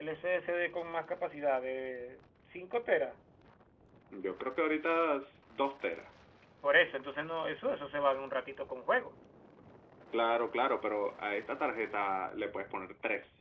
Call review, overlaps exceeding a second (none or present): none